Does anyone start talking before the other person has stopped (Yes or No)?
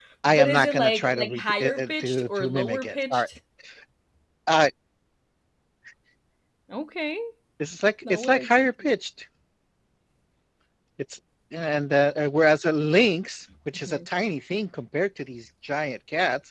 Yes